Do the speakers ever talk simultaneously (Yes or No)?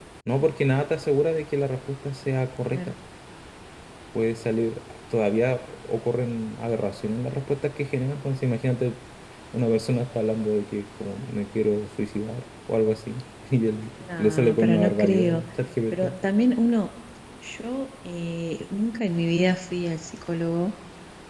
Yes